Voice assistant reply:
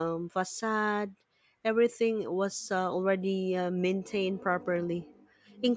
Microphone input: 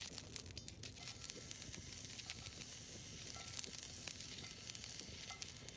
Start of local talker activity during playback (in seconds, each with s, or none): none